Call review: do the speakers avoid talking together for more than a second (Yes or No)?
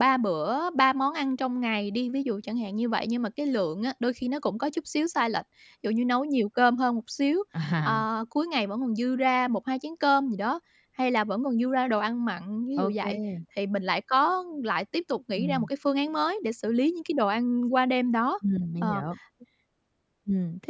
Yes